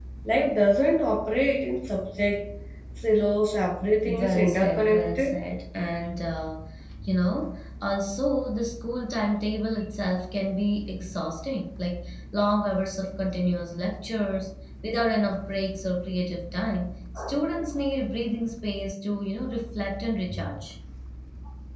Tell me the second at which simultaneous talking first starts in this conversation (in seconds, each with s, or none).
4.0 s